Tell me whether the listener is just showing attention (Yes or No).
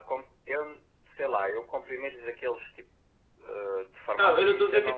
No